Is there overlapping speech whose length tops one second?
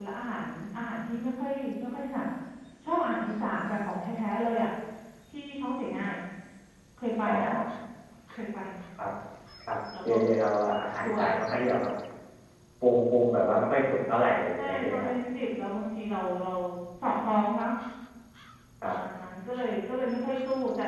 No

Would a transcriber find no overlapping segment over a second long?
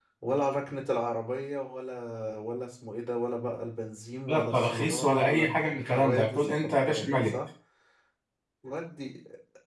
No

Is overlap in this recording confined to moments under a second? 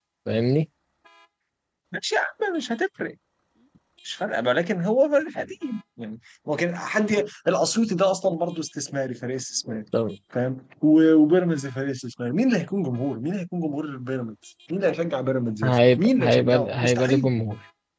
No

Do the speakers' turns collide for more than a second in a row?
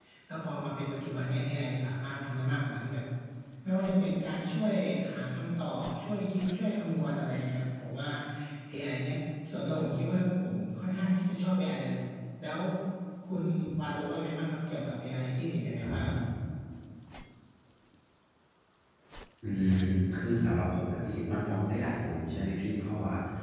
No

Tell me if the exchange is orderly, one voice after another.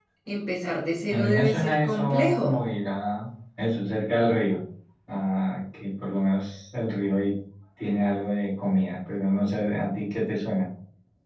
No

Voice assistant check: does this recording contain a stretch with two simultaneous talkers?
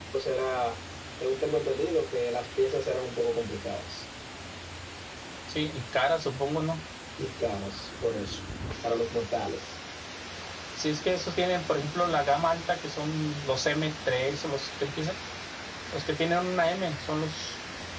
No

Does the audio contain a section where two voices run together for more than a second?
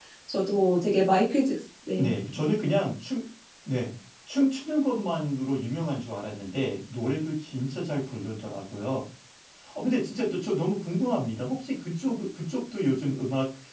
No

